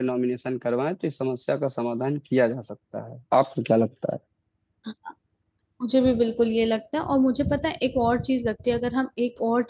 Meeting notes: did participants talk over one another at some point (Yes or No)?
No